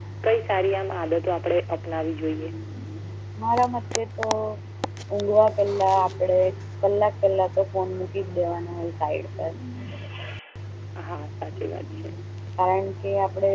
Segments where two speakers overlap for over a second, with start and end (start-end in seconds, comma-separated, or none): none